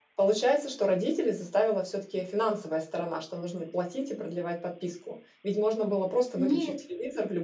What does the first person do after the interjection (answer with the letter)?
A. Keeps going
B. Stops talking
A